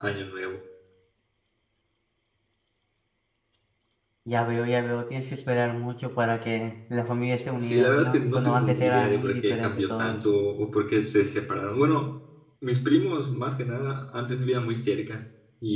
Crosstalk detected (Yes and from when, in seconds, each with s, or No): Yes, from 7.6 s